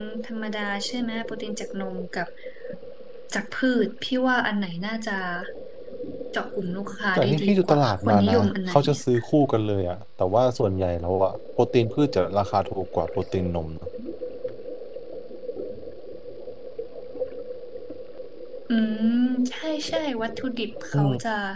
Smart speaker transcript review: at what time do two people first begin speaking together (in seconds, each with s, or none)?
7.2 s